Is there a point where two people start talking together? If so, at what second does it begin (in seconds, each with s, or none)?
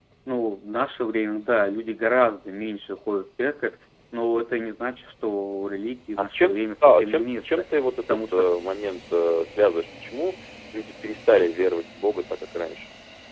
6.2 s